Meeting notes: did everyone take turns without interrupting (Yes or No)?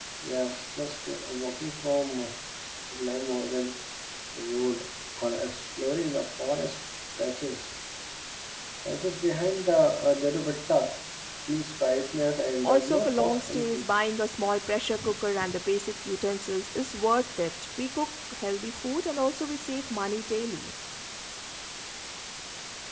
No